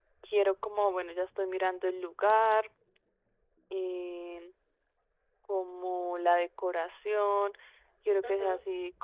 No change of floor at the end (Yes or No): Yes